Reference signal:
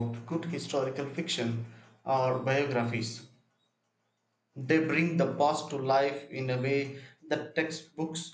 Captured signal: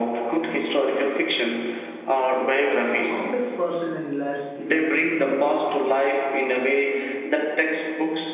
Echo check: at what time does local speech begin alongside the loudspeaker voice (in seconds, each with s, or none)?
3.0 s